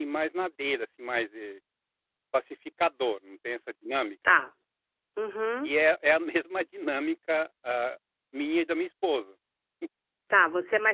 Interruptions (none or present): none